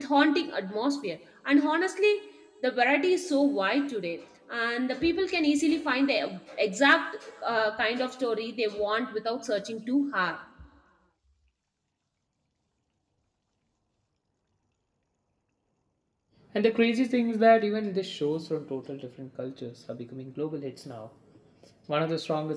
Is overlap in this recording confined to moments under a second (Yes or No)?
Yes